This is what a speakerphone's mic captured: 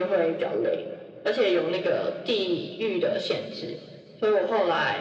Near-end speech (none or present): none